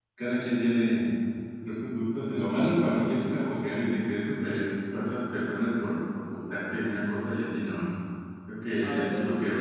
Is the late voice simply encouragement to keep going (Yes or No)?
No